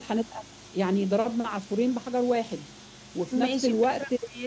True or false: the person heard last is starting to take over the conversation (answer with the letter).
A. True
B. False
A